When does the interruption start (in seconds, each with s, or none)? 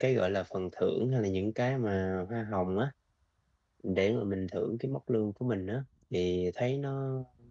none